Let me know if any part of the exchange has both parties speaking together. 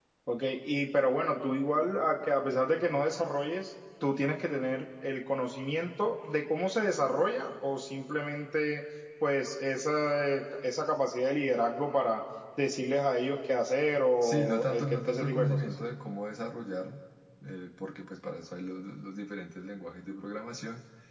Yes, from 14.2 s

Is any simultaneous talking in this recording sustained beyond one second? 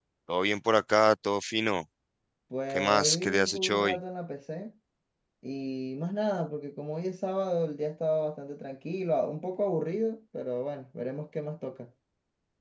Yes, from 2.7 s

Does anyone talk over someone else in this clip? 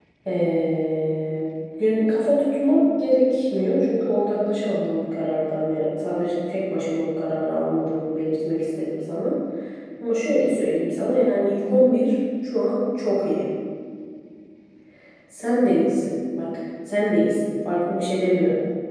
No

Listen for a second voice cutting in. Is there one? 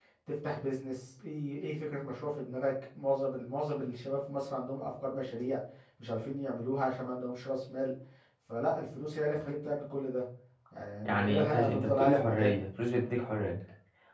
Yes, from 11.1 s

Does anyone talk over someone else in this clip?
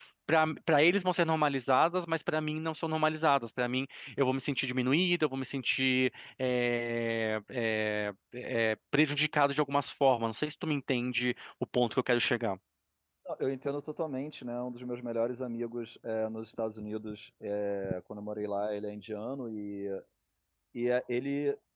No

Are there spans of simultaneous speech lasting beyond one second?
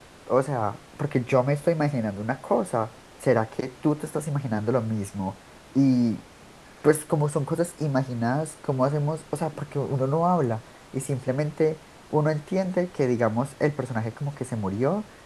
No

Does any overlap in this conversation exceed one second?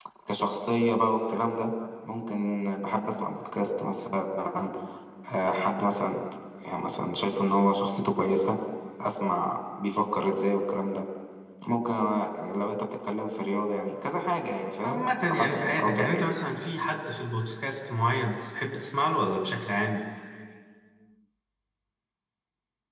Yes, from 14.8 s

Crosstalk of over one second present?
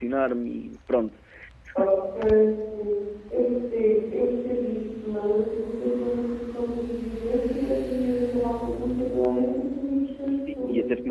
No

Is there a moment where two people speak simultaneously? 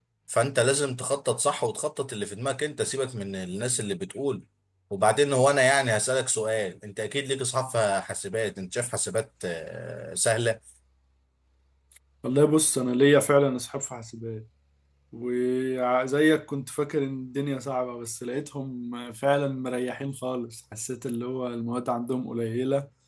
No

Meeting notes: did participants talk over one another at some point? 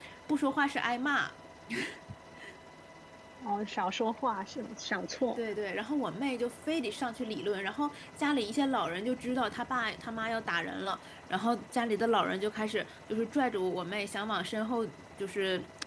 No

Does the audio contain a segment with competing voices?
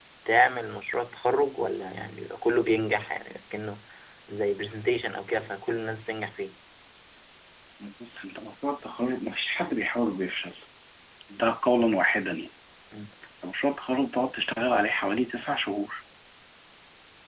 No

